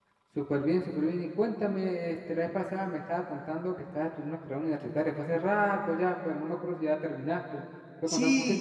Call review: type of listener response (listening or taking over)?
taking over